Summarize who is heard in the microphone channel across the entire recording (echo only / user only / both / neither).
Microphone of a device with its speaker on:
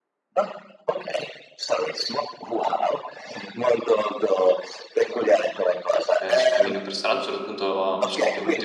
both